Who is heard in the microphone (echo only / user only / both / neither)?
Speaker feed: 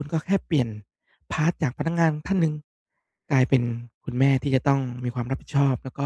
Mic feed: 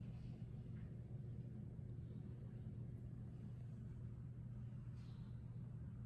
neither